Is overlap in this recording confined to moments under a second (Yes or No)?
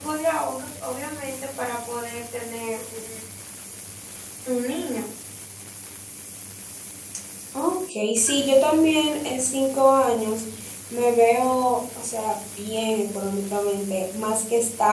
Yes